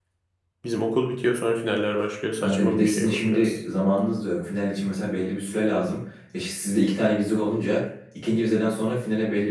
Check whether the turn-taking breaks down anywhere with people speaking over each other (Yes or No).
Yes